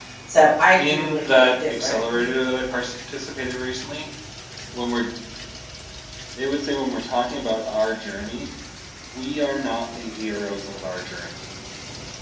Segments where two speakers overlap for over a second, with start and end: 0.8-2.0

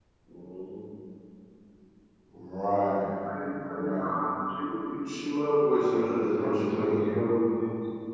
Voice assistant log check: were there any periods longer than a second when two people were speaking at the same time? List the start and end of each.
5.8-7.0

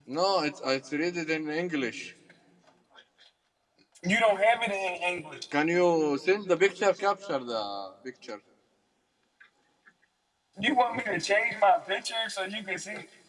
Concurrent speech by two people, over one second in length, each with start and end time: none

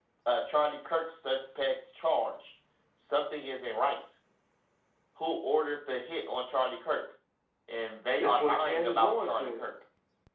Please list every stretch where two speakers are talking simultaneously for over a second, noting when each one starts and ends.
8.2-9.6

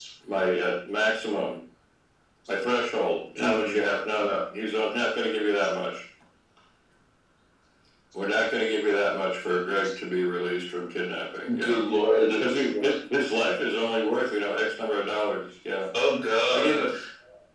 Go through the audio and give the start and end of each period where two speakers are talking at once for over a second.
none

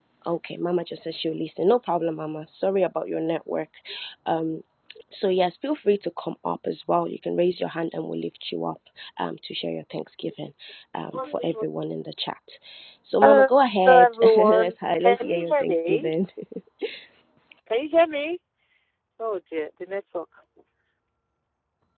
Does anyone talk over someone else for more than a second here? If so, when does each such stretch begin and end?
13.8-16.1

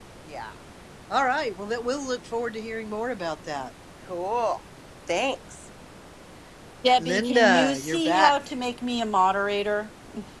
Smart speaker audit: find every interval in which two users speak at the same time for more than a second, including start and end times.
7.0-8.3

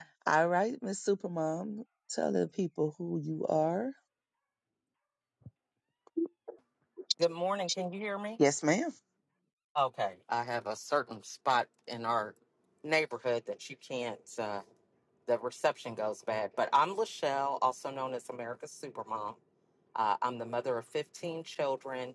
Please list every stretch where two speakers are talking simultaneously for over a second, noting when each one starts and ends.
none

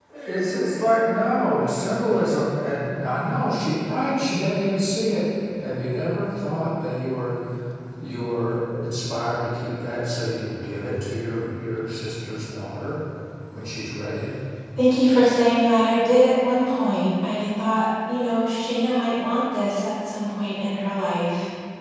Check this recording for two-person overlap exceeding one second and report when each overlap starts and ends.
none

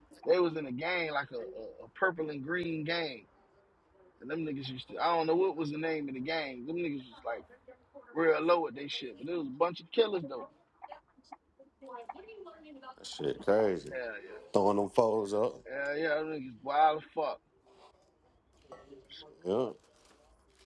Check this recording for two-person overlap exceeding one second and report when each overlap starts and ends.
none

